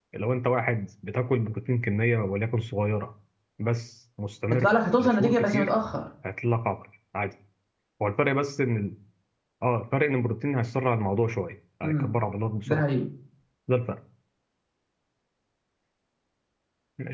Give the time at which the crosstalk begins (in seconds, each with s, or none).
4.5 s